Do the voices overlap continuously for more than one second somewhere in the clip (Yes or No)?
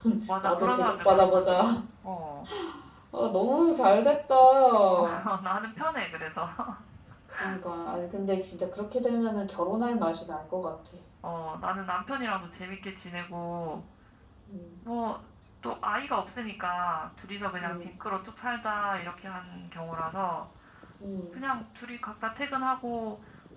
Yes